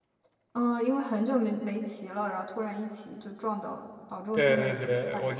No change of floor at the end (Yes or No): No